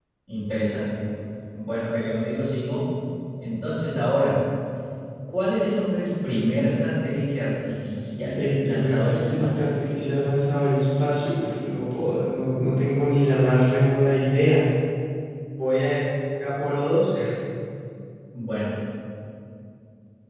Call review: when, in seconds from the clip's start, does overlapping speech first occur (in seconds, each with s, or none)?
8.4 s